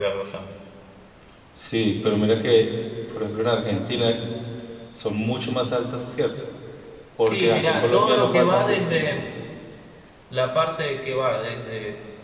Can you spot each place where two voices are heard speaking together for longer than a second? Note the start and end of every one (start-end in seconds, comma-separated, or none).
7.2-9.1